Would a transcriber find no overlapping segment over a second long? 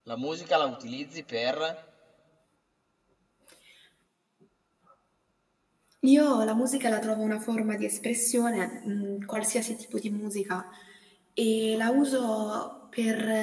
Yes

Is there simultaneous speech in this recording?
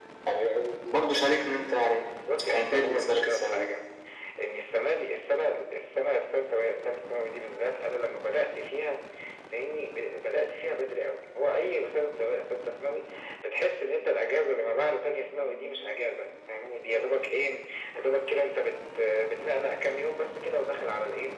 Yes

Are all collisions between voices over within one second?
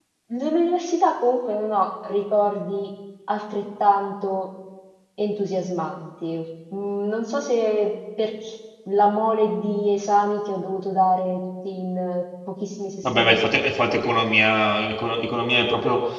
Yes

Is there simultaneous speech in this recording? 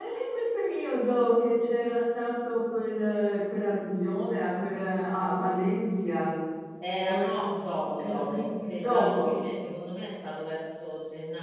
Yes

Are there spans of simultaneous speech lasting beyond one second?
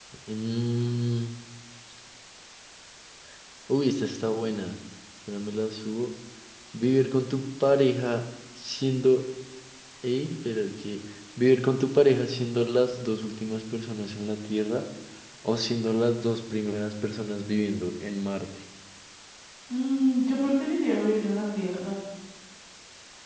No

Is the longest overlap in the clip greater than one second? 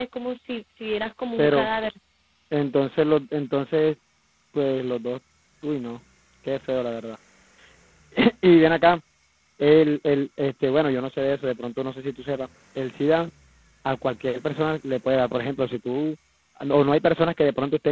No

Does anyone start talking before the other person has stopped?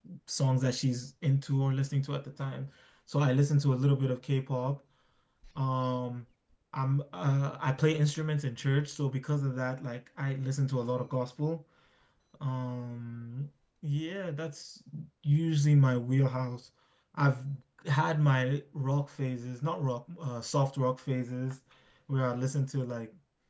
No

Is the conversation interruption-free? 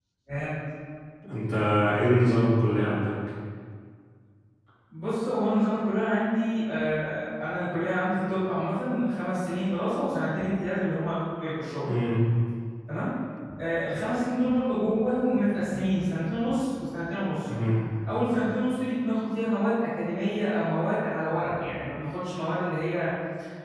Yes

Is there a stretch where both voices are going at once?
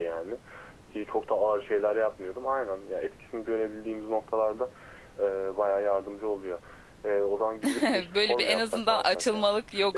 Yes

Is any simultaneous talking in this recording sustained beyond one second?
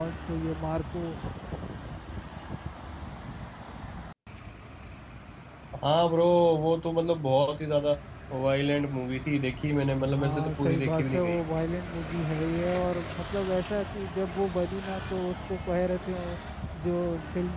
Yes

